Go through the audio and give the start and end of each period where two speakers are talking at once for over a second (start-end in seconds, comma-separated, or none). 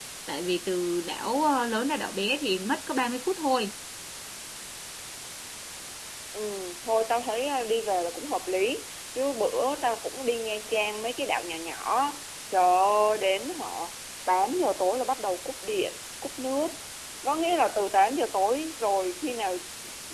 none